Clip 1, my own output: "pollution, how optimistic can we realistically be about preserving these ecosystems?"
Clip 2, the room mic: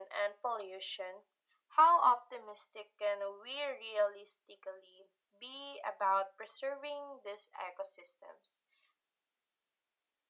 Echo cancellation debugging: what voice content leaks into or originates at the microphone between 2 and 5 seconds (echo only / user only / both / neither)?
echo only